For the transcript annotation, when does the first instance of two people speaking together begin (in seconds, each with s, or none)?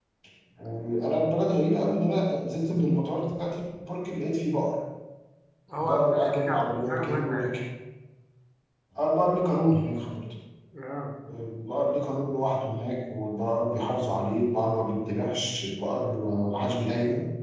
5.8 s